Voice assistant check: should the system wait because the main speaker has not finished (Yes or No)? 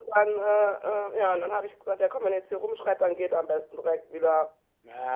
No